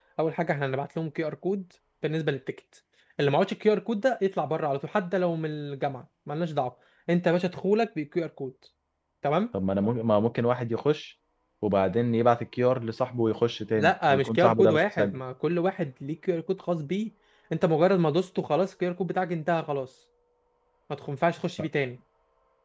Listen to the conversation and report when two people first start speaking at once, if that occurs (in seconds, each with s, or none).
13.8 s